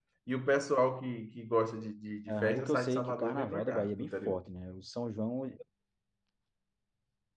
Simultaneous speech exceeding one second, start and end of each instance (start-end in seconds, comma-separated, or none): 2.3-4.4